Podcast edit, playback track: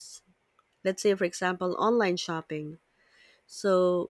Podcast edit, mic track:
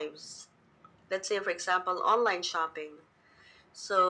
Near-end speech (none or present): none